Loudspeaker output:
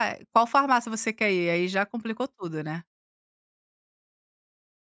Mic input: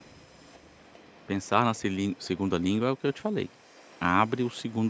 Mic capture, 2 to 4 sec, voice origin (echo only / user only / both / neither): user only